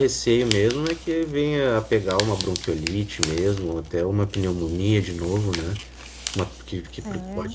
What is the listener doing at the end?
listening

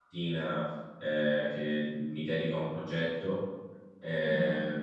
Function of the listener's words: listening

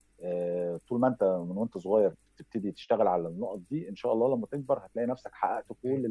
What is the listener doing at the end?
listening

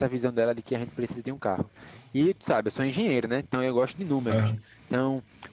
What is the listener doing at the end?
listening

